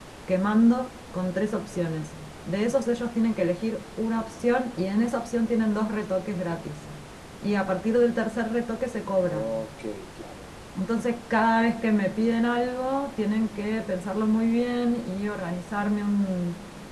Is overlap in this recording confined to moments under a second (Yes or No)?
Yes